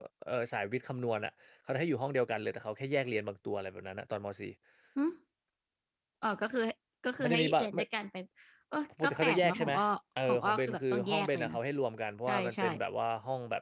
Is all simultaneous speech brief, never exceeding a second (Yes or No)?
No